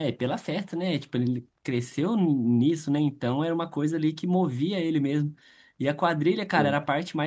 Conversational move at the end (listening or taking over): listening